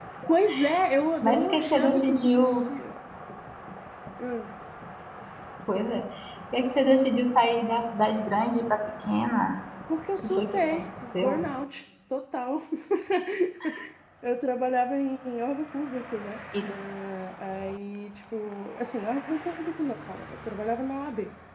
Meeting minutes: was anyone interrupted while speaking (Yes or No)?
Yes